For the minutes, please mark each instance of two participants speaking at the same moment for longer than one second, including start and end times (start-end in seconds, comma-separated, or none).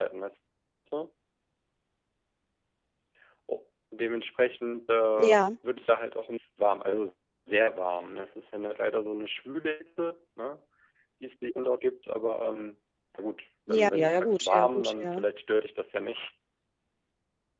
13.7-15.2